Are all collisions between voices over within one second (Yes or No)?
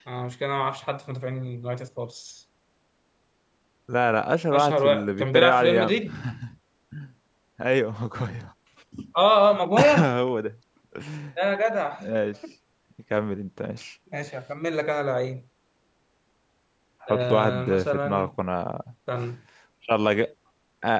No